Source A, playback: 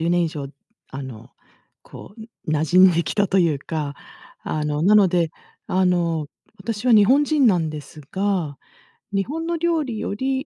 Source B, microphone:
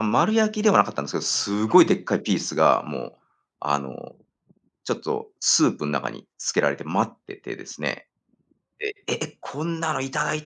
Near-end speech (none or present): present